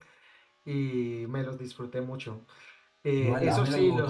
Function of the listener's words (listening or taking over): taking over